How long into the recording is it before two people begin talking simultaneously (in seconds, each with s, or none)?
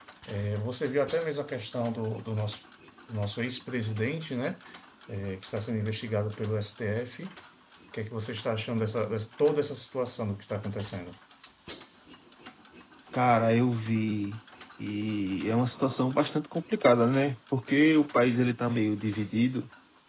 none